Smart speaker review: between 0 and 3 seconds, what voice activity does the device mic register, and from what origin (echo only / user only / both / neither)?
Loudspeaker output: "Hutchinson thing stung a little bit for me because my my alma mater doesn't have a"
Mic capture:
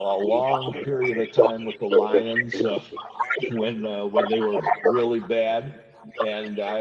both